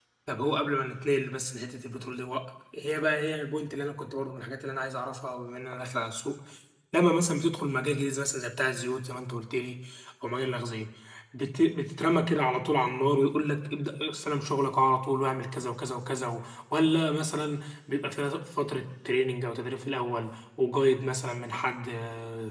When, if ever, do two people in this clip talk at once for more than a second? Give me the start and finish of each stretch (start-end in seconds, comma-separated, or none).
none